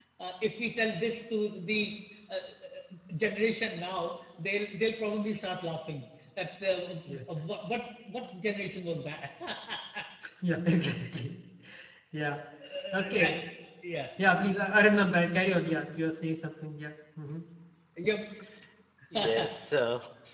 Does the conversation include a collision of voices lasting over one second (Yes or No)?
No